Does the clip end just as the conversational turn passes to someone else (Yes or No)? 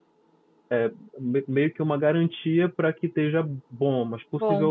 No